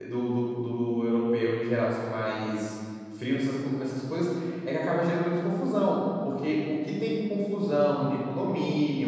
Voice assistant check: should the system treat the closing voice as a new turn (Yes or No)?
No